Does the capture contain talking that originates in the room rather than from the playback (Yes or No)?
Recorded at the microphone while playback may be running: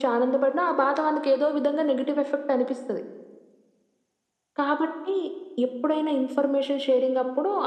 No